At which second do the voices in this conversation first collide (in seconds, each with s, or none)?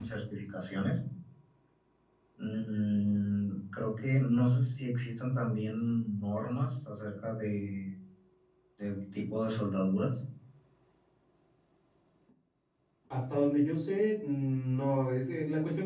none